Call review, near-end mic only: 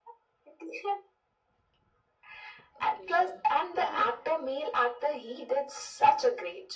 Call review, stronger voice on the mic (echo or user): echo